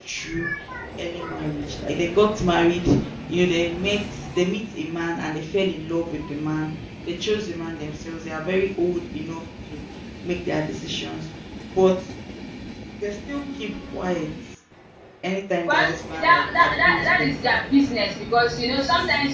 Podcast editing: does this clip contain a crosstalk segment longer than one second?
Yes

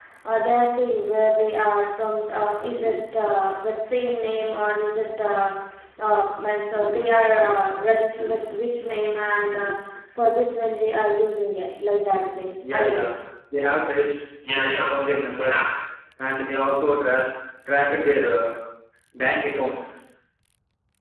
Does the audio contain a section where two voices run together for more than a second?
No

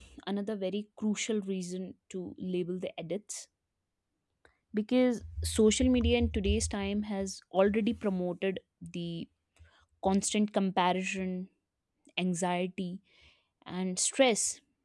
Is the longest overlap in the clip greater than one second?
No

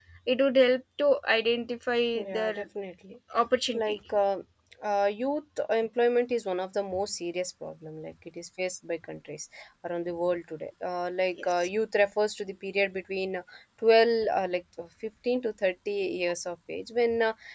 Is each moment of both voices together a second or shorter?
Yes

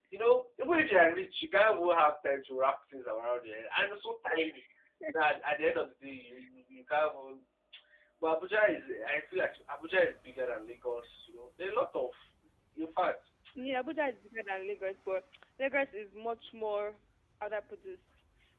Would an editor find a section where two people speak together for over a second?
No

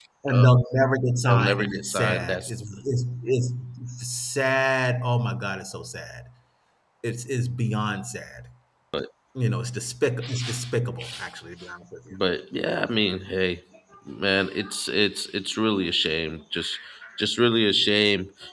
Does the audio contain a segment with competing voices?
Yes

